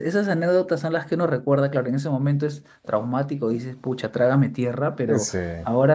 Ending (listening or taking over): listening